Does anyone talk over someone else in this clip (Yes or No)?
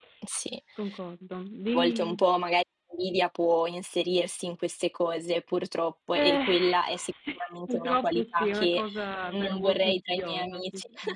Yes